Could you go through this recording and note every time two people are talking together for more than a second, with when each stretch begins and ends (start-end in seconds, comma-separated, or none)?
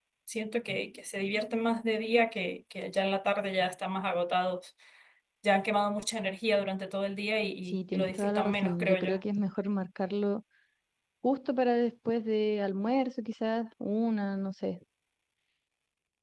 7.7-9.2